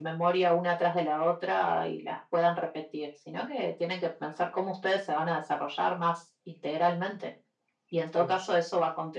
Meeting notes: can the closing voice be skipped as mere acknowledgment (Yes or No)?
Yes